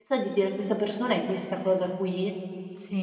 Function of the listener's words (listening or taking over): taking over